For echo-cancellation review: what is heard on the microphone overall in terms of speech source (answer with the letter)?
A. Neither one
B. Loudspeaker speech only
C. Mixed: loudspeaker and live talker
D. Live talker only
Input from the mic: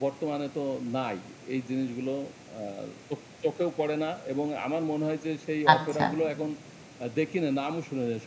C